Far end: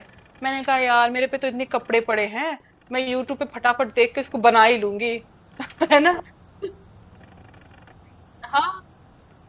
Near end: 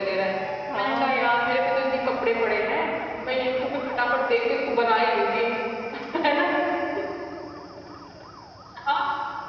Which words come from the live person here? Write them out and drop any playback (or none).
हाँ बहुत प्रिटी